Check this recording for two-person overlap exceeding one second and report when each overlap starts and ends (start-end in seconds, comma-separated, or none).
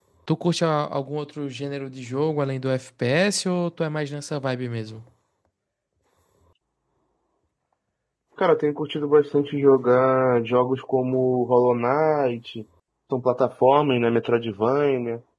none